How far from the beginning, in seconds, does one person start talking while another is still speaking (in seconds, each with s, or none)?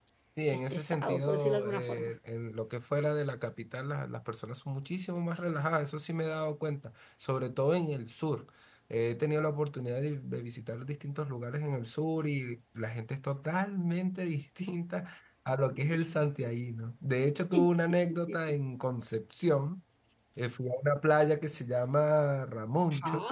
0.5 s